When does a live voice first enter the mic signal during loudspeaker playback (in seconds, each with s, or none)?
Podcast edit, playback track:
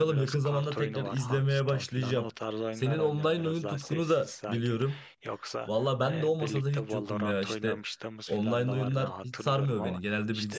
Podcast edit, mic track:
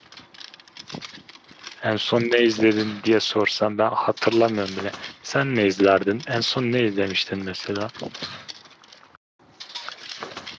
1.8 s